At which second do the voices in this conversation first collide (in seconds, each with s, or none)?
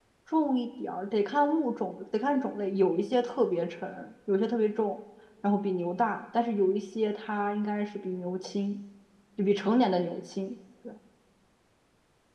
none